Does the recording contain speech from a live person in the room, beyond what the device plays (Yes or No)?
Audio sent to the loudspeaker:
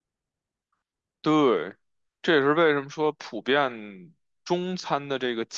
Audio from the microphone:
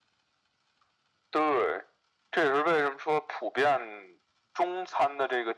No